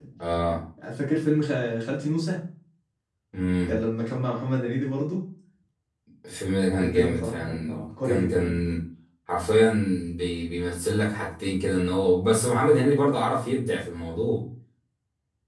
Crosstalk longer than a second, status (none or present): present